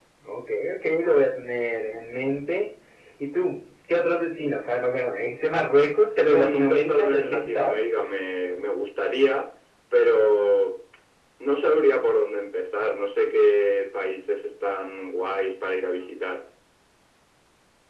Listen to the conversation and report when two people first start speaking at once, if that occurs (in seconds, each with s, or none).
6.2 s